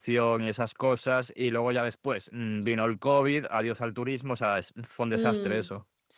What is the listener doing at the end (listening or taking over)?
taking over